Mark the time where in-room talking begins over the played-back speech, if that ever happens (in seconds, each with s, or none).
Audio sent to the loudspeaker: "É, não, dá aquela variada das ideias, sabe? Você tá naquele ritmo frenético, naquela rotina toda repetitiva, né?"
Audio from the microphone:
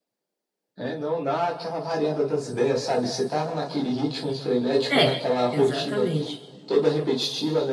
4.9 s